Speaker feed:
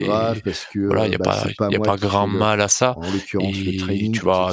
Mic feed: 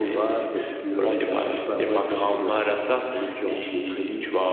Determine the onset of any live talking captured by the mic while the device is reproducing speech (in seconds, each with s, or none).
none